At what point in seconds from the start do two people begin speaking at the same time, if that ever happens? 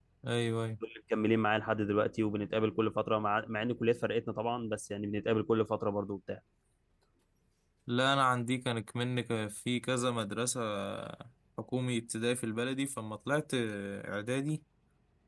none

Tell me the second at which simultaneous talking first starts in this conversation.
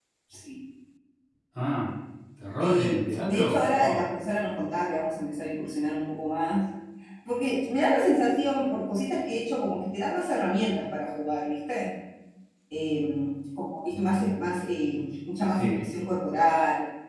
2.6 s

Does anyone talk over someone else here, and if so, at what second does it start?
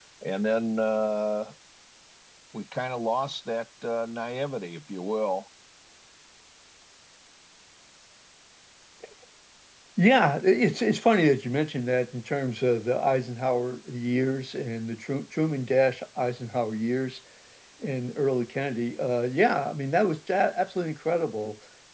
none

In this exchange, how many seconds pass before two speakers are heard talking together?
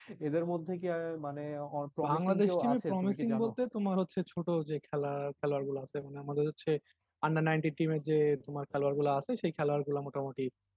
2.1 s

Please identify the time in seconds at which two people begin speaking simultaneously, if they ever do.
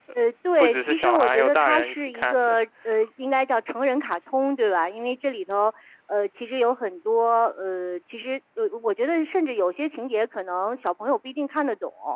0.6 s

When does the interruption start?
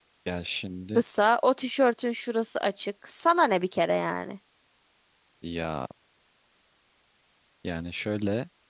none

